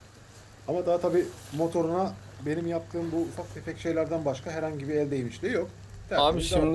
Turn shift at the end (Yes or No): Yes